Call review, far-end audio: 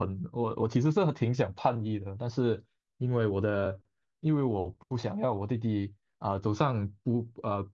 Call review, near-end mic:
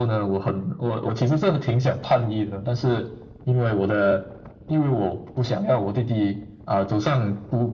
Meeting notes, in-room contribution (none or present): none